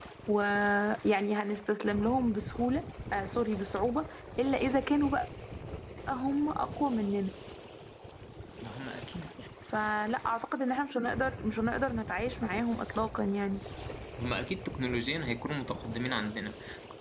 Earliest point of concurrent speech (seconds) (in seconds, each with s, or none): none